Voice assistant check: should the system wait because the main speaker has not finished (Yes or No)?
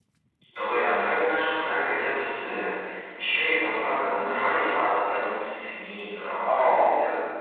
No